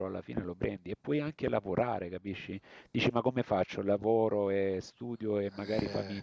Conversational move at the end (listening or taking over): listening